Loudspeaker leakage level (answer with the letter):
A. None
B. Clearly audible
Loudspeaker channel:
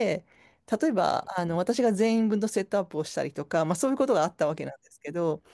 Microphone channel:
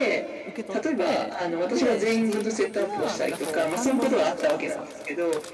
B